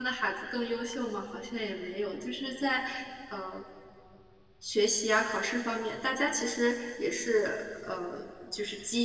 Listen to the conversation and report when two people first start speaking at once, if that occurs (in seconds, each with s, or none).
none